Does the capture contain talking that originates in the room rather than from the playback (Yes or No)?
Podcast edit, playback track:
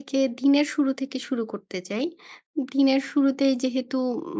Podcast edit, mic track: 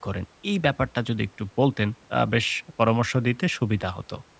Yes